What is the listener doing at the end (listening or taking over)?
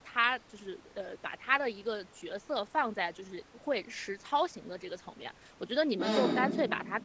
listening